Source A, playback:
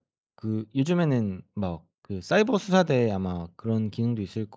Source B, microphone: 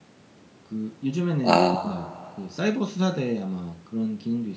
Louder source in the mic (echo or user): user